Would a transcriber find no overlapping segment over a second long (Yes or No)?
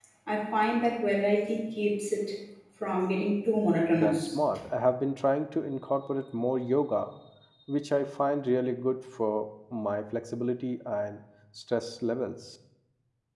Yes